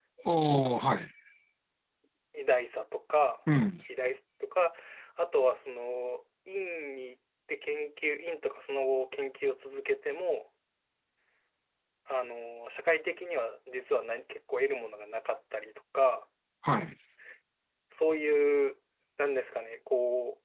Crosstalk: none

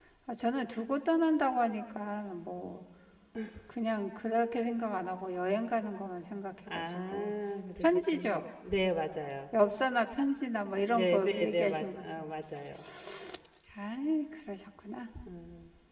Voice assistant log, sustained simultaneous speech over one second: present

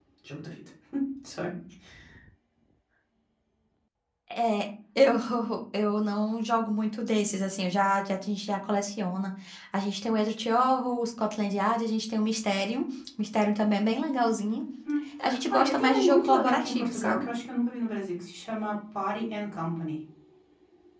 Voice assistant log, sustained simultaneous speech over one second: present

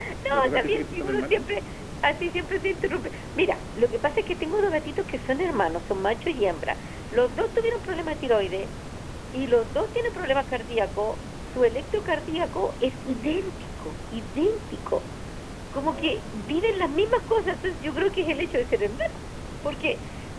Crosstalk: present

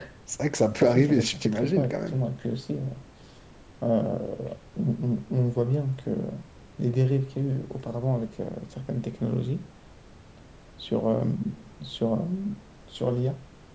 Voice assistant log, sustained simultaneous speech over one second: present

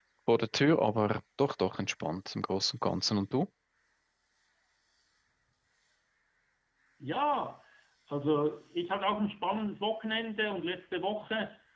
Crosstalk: none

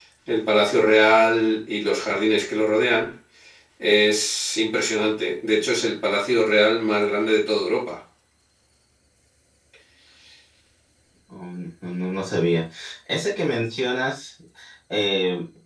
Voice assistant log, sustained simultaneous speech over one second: none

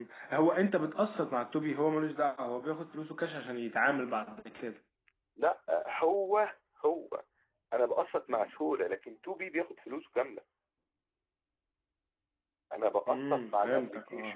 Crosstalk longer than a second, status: present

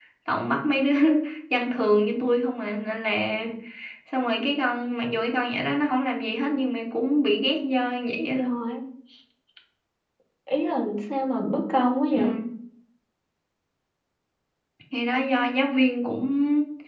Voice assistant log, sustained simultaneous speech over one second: none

